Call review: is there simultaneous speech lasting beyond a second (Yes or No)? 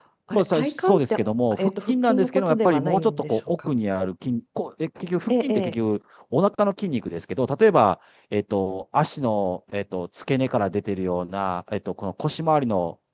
Yes